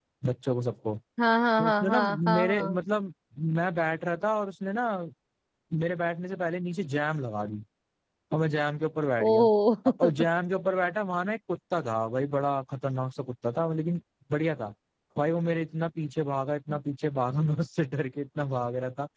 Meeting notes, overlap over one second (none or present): present